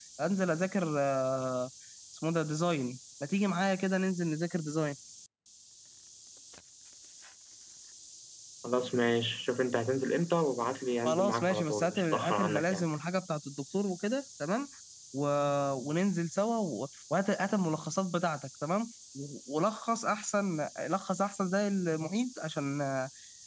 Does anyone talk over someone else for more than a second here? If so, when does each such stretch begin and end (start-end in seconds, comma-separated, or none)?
11.1-12.8